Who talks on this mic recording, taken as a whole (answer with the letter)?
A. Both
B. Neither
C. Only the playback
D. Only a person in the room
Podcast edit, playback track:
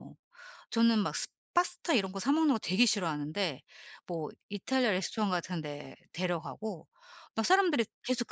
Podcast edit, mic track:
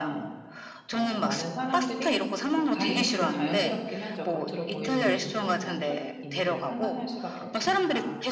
A